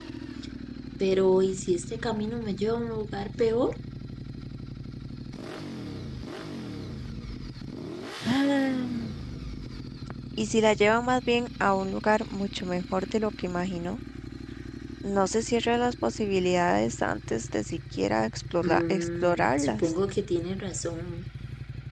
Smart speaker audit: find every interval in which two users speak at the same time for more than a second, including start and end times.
18.6-19.9

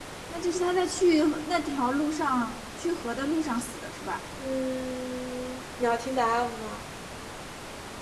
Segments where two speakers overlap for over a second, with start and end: none

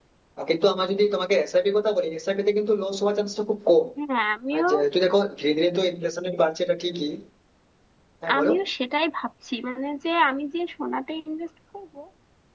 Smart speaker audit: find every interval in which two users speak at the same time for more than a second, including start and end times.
none

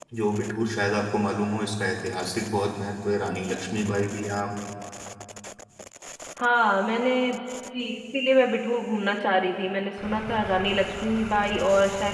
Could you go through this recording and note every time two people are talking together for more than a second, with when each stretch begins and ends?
none

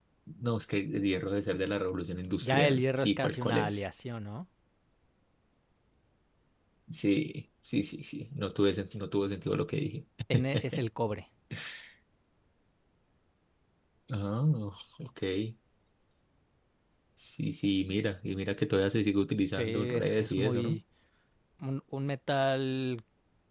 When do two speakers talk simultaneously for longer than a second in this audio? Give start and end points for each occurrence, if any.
2.4-3.8, 19.5-20.8

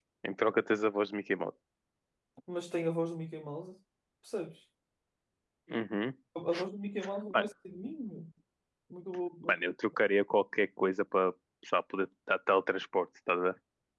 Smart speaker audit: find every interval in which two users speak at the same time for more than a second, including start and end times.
none

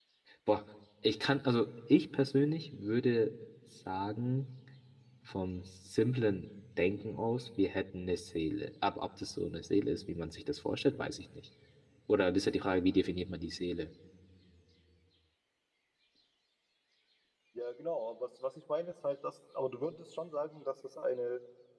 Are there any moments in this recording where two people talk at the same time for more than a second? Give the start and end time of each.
none

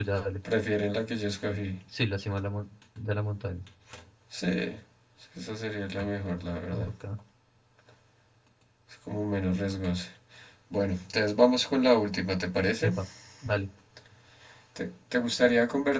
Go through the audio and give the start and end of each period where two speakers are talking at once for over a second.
none

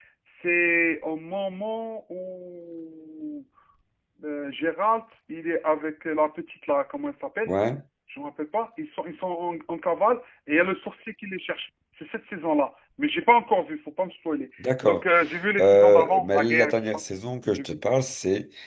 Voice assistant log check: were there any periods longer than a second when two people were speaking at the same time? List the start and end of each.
15.6-17.0

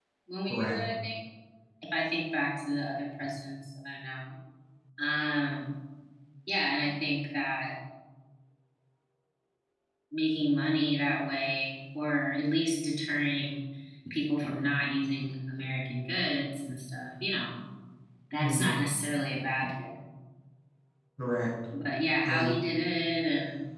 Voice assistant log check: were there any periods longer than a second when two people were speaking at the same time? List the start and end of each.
none

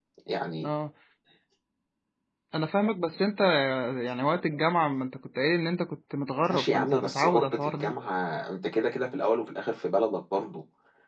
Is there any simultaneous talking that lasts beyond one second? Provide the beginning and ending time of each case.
6.5-7.9

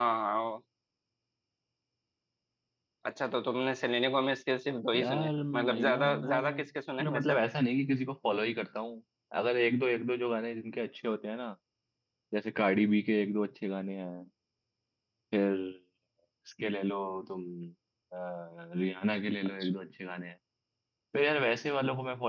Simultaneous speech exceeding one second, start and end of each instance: 4.9-6.6

